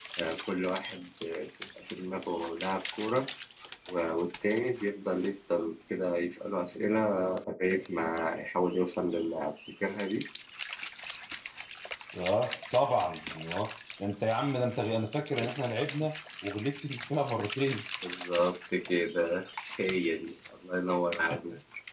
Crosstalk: none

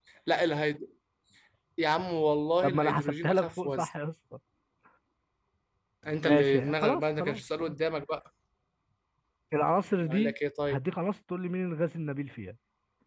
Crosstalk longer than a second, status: present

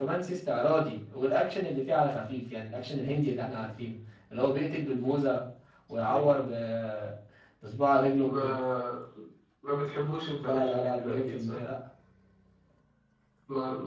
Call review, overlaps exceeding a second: present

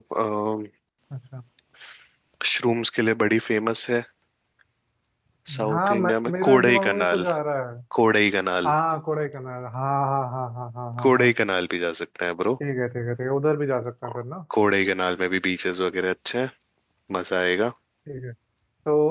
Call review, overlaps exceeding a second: present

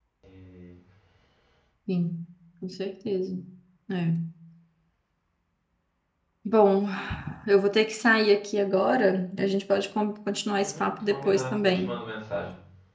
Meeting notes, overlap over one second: present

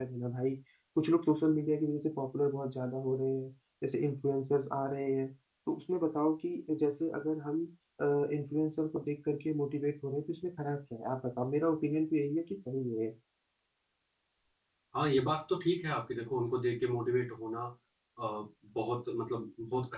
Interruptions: none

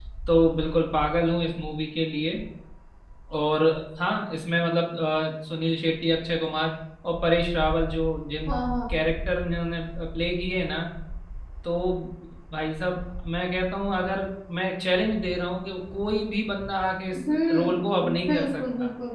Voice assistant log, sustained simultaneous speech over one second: present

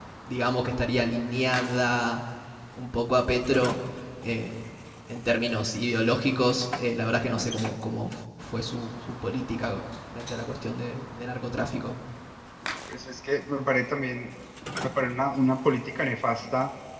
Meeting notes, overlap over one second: none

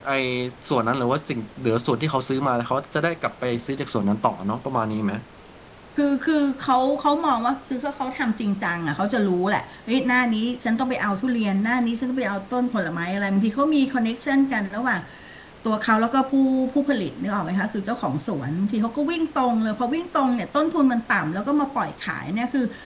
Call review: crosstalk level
none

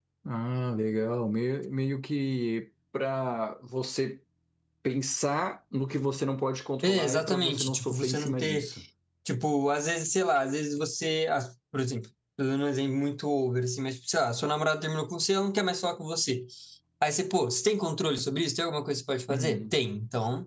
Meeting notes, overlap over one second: present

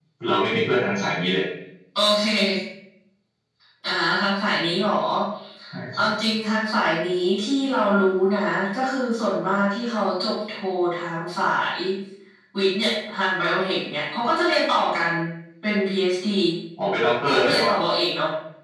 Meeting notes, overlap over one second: none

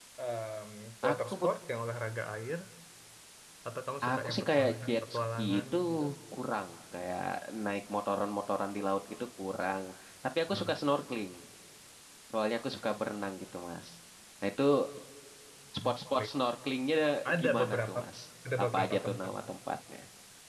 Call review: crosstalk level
present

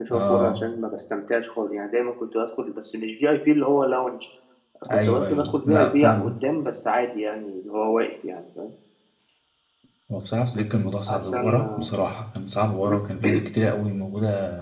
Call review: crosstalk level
present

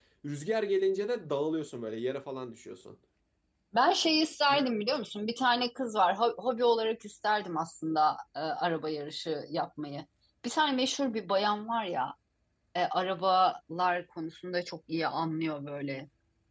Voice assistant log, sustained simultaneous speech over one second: none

